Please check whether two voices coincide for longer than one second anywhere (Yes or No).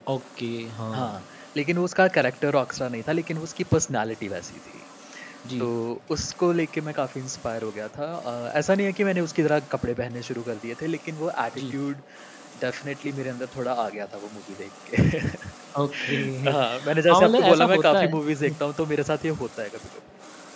Yes